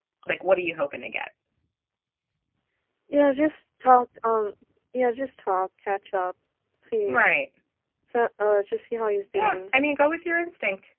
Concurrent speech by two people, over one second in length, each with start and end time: none

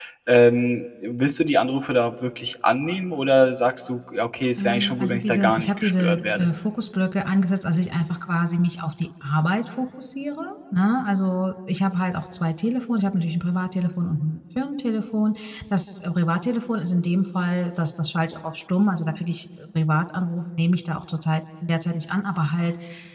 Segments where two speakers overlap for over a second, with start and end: 4.6-6.5

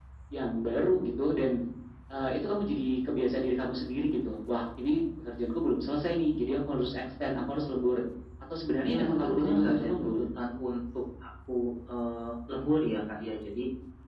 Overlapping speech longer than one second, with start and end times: 8.9-10.2

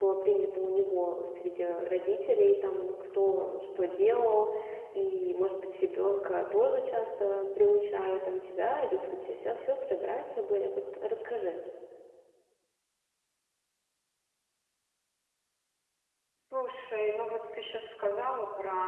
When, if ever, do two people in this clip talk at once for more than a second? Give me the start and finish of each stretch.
none

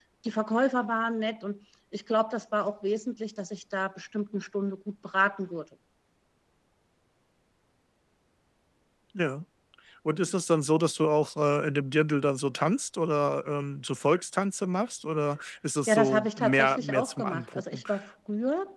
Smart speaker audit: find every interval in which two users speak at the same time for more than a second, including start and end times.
15.9-17.8

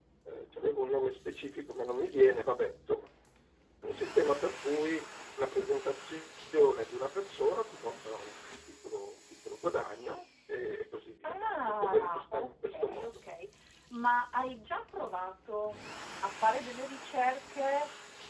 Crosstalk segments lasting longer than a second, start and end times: 11.2-13.1

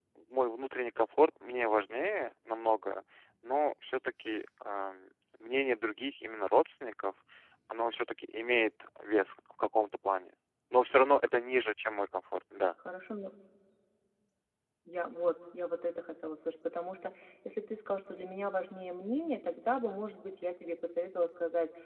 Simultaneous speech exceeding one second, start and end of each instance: none

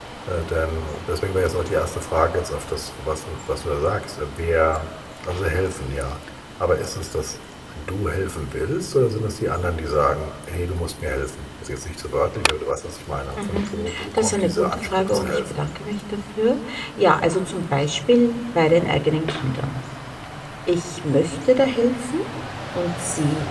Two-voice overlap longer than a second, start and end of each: 14.1-15.6

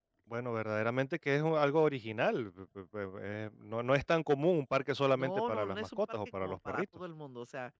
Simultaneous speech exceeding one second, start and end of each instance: 5.1-6.8

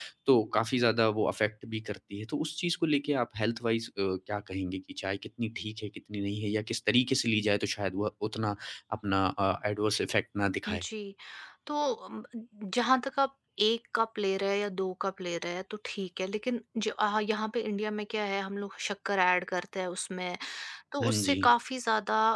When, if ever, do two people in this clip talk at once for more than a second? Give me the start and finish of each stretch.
none

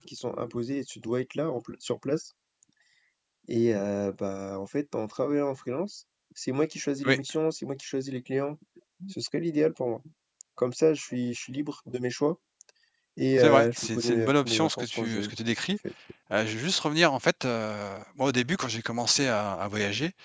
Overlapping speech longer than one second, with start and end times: 13.4-15.3

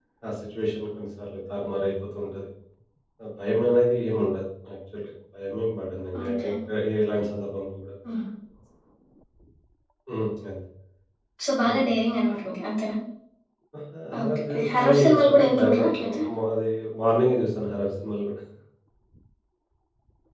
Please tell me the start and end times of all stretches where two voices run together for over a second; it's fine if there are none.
14.2-16.2

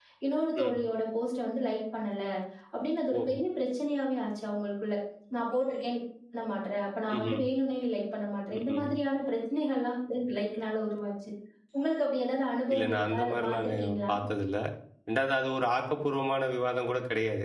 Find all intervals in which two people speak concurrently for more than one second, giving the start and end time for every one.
12.7-14.1

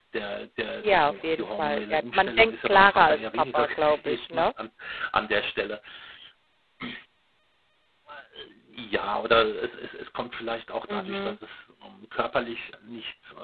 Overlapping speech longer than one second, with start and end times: 0.8-4.5

